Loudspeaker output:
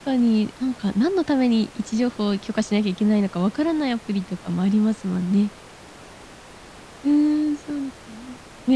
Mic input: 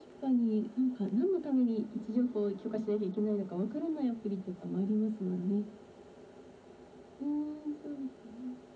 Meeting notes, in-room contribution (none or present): none